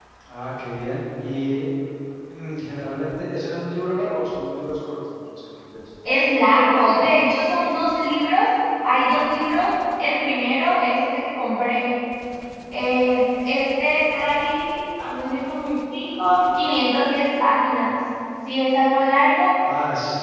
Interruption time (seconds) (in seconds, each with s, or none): none